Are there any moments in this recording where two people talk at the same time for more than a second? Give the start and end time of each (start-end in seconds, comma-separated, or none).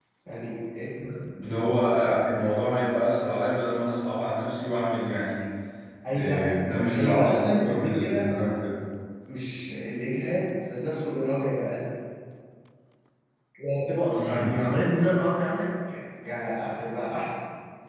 7.0-8.3